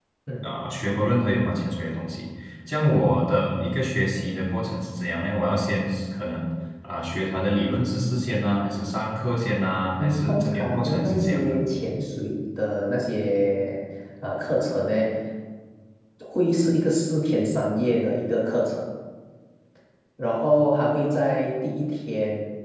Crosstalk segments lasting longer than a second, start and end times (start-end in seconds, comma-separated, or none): 10.0-11.7